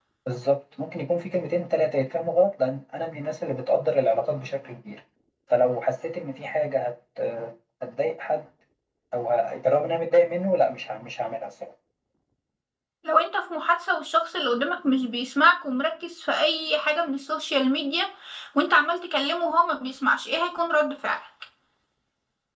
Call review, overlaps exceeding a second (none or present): none